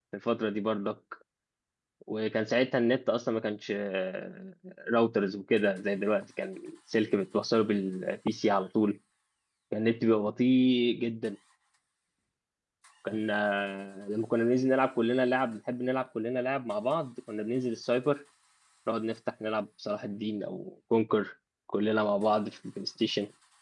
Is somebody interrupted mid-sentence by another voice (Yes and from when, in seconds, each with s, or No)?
No